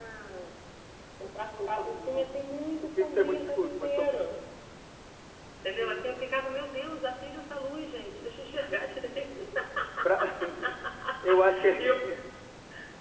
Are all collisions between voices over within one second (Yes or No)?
No